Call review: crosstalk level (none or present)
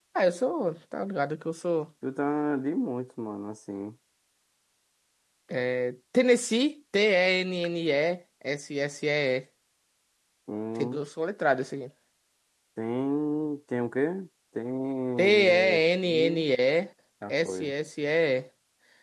present